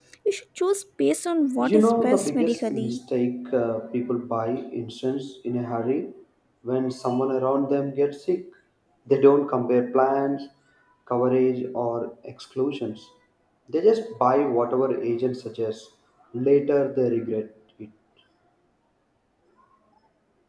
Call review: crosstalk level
present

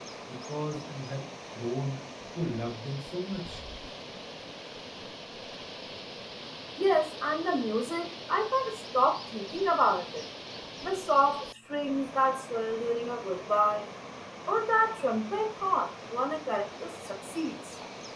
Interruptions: none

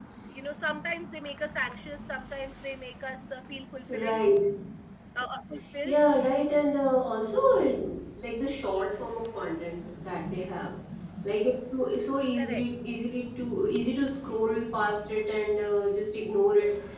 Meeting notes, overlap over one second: none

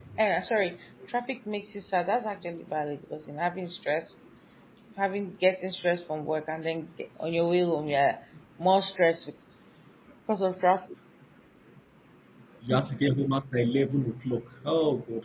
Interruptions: none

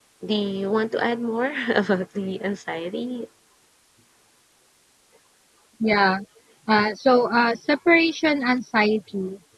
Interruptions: none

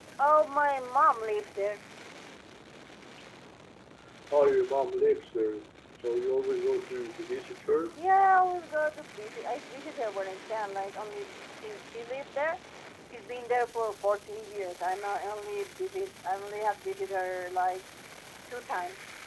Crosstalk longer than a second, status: none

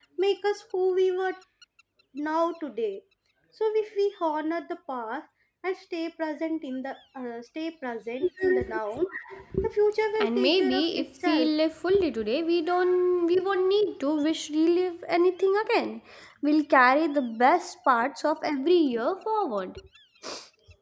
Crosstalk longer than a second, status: present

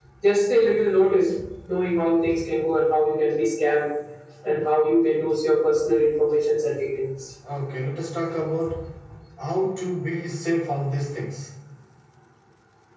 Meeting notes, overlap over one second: none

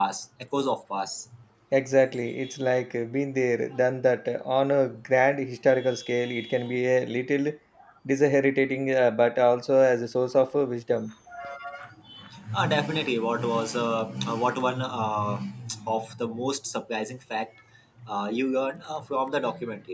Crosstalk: none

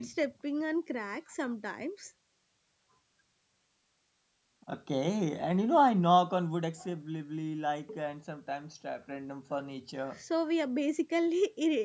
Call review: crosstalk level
none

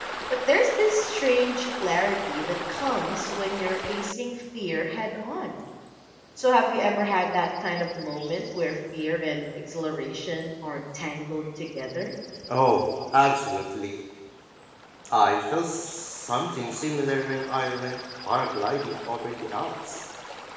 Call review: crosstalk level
none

